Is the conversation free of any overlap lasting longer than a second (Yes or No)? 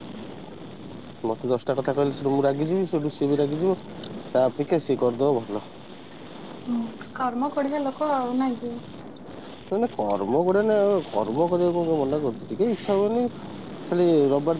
Yes